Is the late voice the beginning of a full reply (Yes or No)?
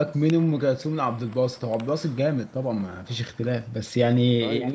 No